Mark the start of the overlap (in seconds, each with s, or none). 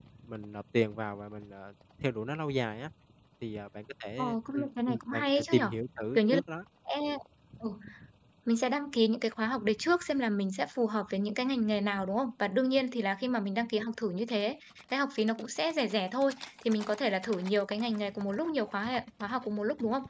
4.2 s